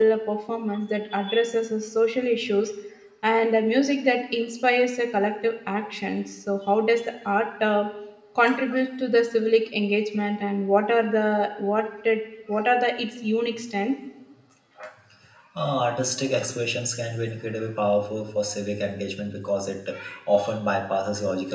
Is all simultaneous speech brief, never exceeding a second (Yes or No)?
Yes